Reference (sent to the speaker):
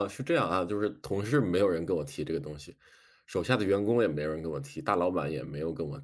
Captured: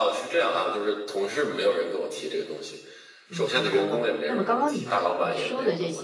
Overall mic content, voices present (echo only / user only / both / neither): both